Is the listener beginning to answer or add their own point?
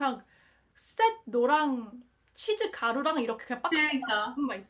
No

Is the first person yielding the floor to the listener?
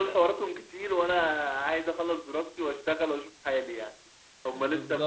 No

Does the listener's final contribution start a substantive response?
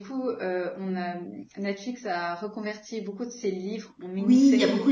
Yes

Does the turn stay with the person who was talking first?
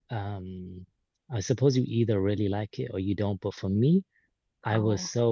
Yes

